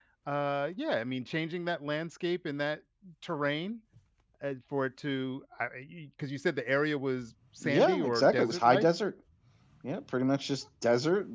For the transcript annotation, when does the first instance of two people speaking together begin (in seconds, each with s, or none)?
7.6 s